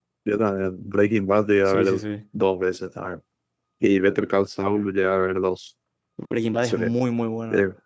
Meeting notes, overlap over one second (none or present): none